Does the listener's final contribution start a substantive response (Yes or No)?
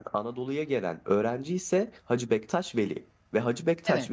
No